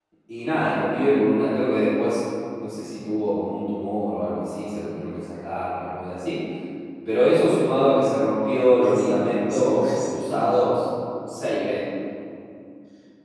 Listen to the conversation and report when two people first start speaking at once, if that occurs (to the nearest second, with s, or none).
9 s